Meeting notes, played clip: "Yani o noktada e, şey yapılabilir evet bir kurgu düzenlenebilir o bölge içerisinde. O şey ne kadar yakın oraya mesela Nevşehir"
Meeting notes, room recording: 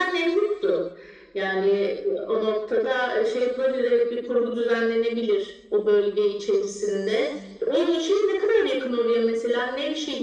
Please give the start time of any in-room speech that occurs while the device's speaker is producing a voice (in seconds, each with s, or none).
none